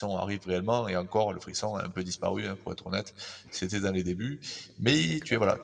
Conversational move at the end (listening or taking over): listening